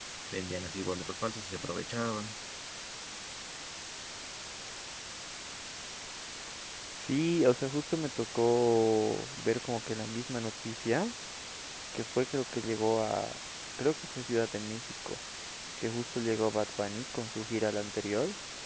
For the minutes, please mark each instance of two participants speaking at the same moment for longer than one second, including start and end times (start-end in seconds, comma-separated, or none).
none